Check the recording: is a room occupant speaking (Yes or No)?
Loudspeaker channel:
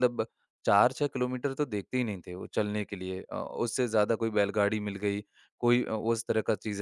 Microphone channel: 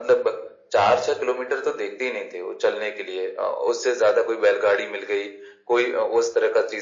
No